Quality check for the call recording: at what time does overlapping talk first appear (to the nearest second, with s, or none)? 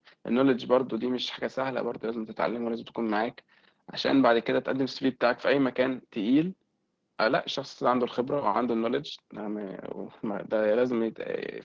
none